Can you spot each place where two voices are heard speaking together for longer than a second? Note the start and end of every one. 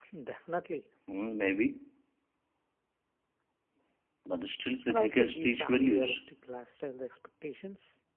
4.9-6.2

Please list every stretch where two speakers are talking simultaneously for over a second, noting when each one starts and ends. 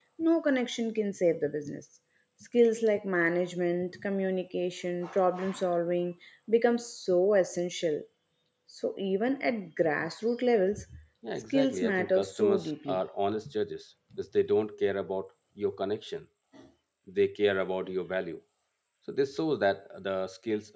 11.5-13.0

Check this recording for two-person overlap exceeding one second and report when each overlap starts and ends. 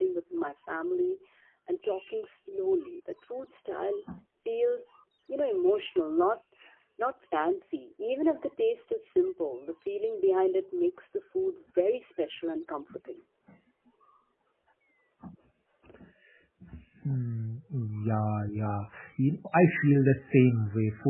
none

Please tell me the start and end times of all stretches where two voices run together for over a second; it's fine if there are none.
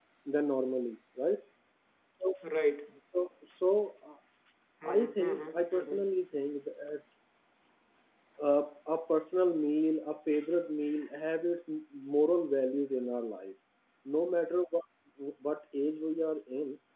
4.8-6.1

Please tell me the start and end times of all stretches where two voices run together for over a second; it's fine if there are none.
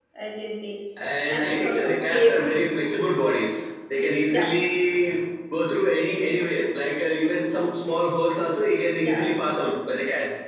1.3-2.6

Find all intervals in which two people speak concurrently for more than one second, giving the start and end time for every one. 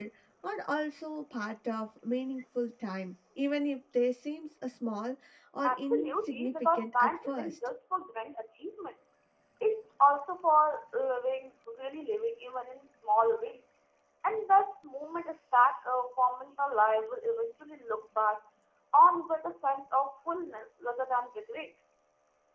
5.6-7.6

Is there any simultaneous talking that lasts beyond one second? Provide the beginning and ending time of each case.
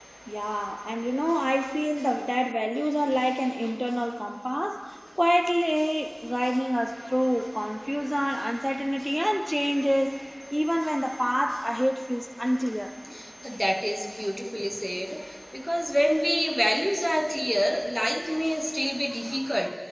none

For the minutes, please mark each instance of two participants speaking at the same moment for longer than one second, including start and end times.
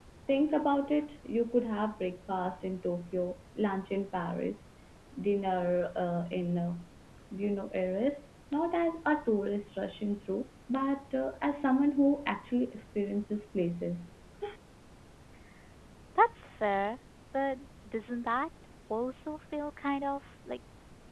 none

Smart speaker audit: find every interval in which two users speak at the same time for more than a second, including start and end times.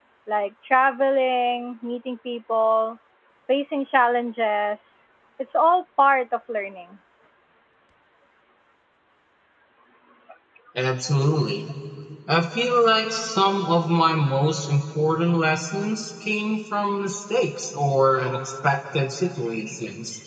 none

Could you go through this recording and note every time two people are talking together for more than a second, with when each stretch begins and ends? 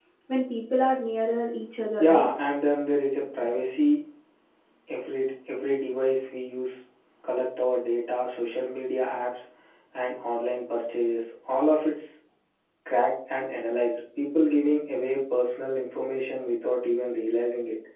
none

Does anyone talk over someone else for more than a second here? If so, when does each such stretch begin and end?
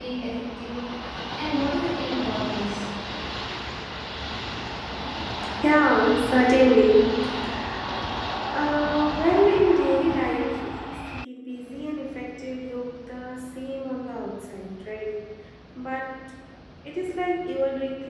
none

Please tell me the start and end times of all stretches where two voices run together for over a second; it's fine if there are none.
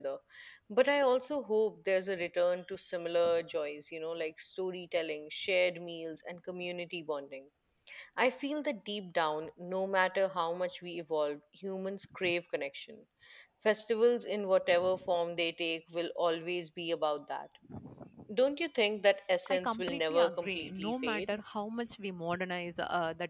19.5-21.4

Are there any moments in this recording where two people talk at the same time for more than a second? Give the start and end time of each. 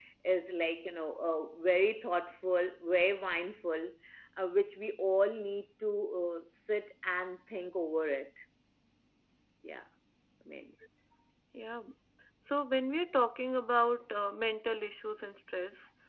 none

